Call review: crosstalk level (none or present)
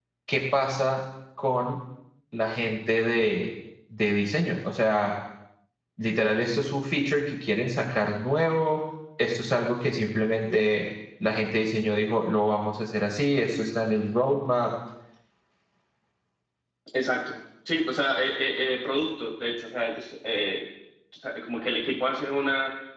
none